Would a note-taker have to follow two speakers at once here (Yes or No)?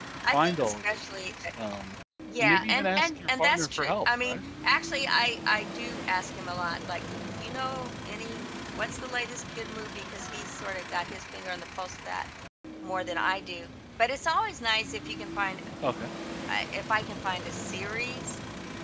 Yes